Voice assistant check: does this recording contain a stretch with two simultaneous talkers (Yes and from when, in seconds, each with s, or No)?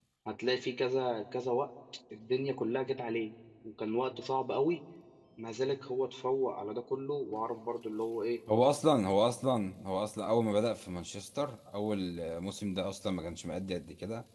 No